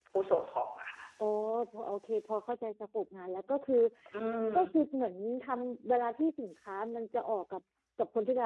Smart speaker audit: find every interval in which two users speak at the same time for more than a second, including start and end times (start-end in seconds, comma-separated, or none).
none